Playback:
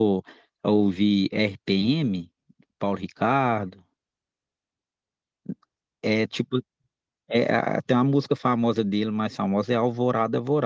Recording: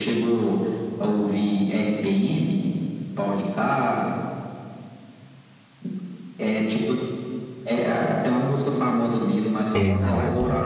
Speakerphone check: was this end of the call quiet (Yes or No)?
No